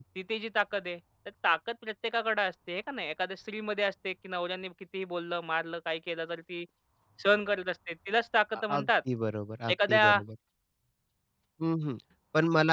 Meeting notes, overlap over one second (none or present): none